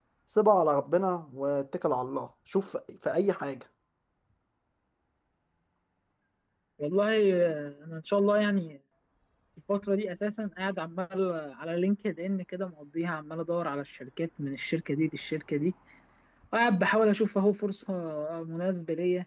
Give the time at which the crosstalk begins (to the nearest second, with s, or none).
none